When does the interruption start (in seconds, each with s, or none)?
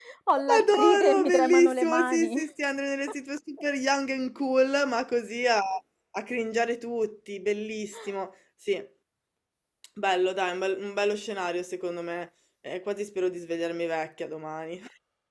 0.6 s